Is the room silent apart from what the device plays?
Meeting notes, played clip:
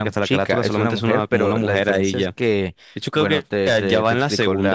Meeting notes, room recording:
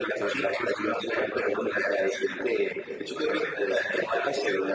Yes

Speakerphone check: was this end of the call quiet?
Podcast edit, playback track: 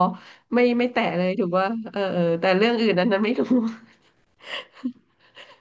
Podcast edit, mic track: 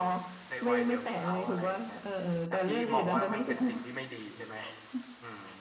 No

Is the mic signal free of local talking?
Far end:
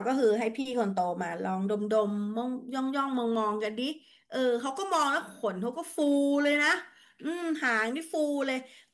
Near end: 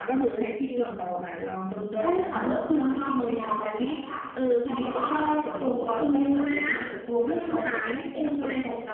No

